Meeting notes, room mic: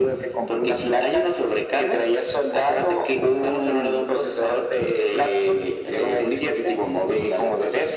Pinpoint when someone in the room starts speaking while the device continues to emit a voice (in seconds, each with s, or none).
none